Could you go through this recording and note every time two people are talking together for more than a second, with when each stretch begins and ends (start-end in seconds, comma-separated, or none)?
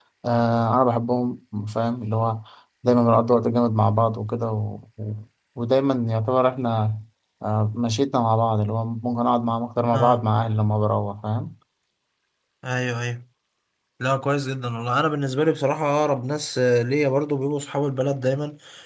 none